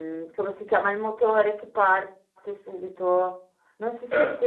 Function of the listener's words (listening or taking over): listening